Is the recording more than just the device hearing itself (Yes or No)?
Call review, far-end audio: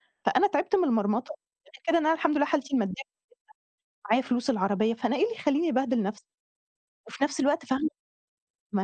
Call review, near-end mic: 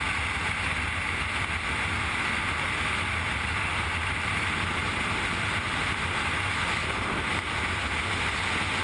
No